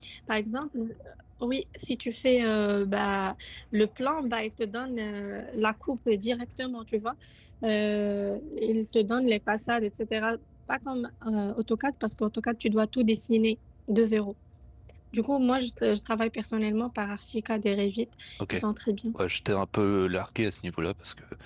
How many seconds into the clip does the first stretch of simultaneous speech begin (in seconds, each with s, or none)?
none